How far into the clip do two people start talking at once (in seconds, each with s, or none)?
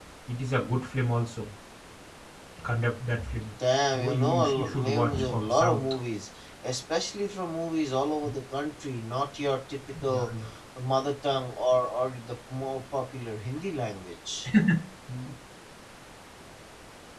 3.9 s